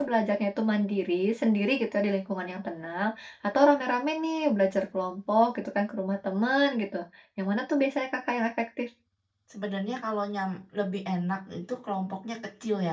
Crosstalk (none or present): none